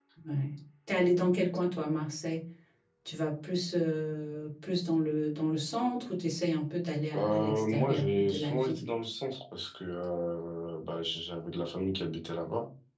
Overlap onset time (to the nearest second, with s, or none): 7 s